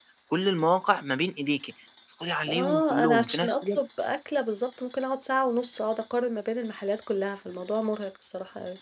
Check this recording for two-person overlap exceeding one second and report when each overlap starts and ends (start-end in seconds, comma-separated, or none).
2.5-3.8